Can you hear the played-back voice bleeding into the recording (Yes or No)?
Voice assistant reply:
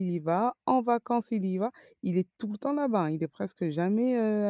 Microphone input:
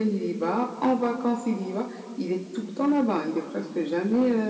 Yes